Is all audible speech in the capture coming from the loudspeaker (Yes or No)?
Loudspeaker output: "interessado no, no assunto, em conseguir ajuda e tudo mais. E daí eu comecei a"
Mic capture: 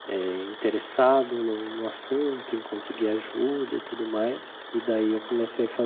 Yes